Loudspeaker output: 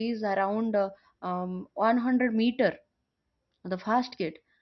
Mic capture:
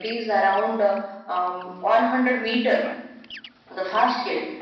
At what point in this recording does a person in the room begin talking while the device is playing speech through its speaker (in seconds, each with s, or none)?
none